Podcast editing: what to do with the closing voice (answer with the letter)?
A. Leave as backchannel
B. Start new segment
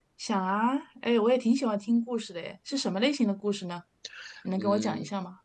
B